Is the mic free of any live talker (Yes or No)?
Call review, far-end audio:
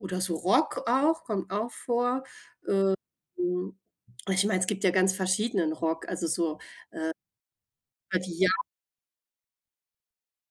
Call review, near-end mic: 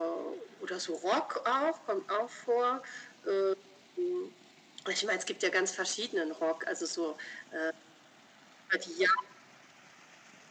Yes